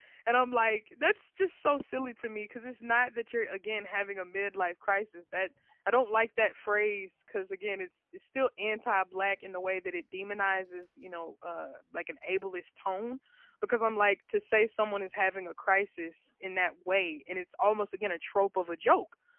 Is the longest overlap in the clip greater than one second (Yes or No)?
No